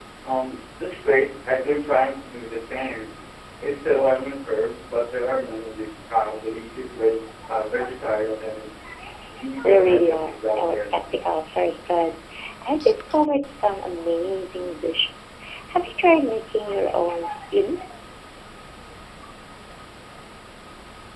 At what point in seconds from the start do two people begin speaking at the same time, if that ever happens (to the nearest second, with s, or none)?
10 s